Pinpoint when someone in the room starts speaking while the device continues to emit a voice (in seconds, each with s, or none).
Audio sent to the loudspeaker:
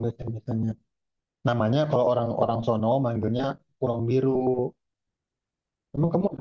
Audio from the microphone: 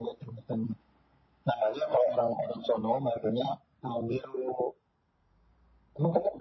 none